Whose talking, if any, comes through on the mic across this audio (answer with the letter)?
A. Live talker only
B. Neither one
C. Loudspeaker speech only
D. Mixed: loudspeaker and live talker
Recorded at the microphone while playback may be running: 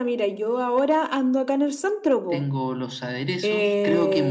C